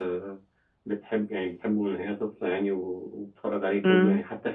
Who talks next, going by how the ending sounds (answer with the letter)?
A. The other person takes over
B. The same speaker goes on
B